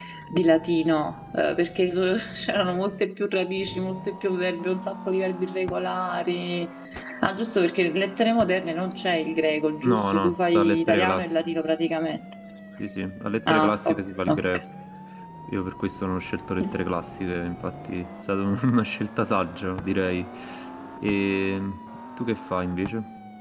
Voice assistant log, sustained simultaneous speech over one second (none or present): present